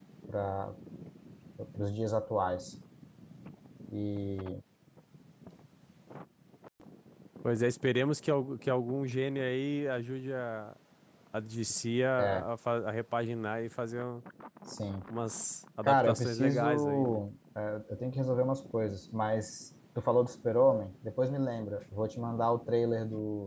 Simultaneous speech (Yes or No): Yes